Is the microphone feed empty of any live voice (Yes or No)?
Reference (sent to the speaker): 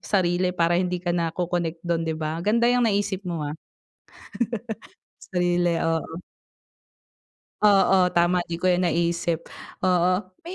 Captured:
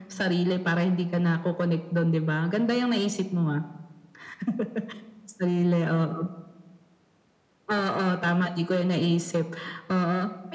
Yes